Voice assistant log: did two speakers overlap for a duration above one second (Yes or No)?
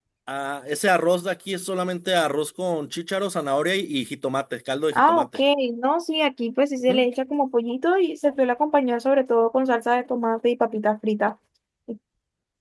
No